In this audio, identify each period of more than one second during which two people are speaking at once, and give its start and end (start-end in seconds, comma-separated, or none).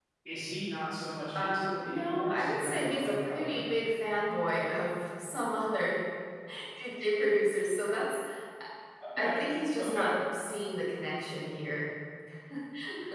1.3-3.6